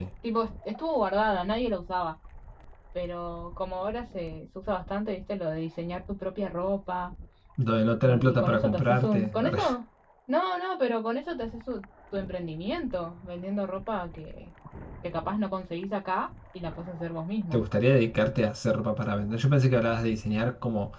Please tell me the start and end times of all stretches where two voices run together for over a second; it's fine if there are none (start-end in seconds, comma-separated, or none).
8.1-9.6